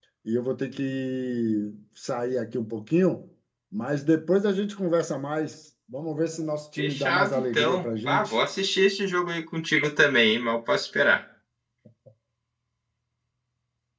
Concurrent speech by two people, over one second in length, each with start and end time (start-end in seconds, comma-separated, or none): 6.8-8.3